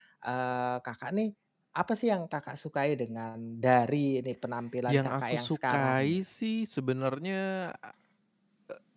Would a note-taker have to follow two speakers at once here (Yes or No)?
Yes